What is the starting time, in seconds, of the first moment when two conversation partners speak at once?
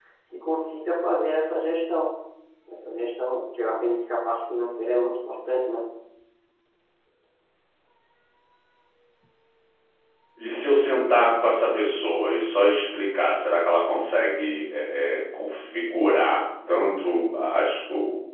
none

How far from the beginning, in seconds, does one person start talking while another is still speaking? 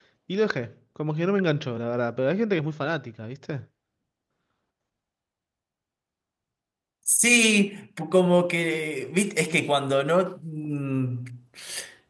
none

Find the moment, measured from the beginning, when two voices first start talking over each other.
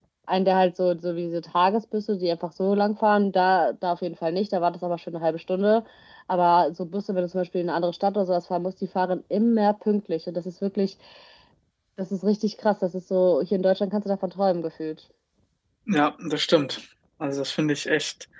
none

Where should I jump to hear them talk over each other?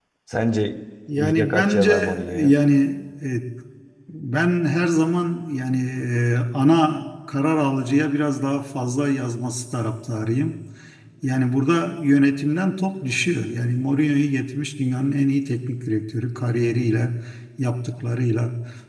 1.2 s

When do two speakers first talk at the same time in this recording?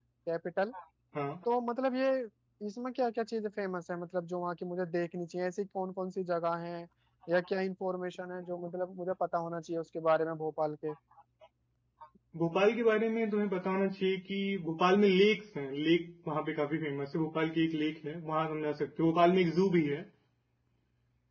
none

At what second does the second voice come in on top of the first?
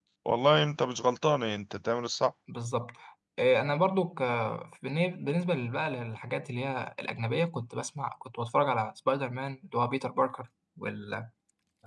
none

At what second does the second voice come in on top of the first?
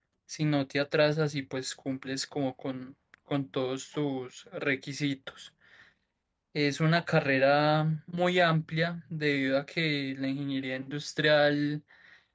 none

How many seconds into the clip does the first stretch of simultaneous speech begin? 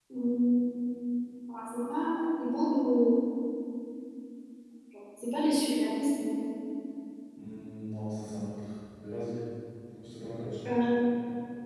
none

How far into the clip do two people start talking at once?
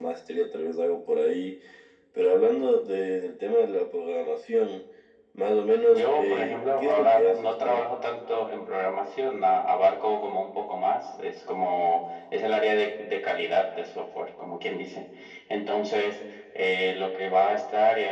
5.9 s

